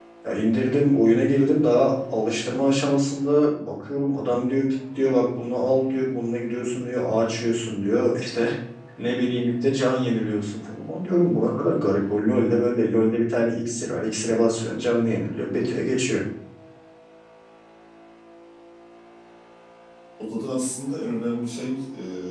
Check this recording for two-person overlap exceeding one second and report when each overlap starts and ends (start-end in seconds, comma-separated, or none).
none